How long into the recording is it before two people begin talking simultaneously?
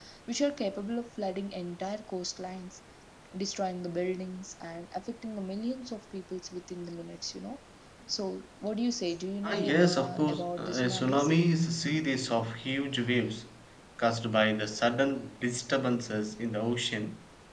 9.4 s

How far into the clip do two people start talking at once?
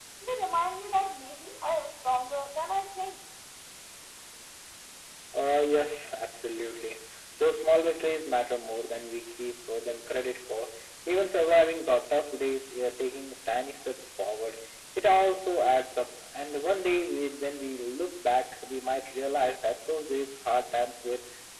none

